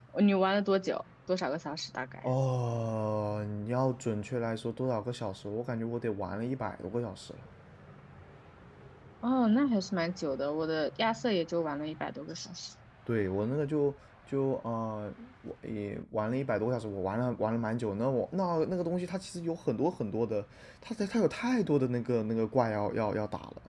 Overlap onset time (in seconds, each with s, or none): none